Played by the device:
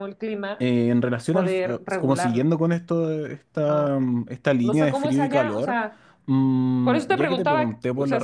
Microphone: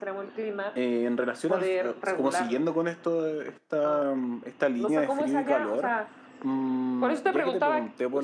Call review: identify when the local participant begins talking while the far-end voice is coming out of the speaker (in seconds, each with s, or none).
none